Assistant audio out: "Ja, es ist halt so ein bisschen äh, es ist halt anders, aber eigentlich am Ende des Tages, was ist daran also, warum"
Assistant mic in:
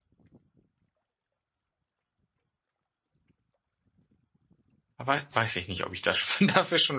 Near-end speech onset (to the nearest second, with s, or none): 5 s